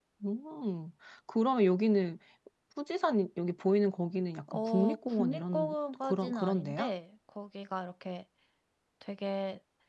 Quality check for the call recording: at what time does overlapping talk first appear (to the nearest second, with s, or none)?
4 s